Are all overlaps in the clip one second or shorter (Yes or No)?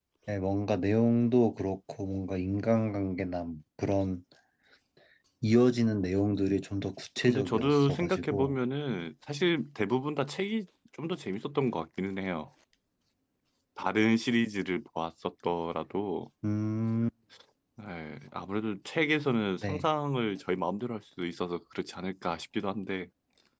No